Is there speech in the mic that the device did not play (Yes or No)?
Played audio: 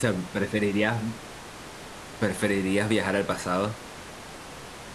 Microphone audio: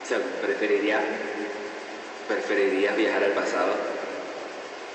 No